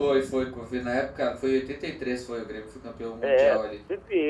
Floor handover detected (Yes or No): Yes